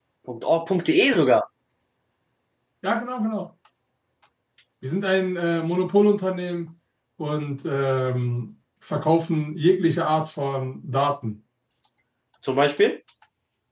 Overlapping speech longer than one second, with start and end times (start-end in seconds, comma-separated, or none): none